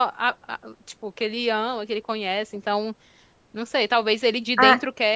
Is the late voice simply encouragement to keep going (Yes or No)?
Yes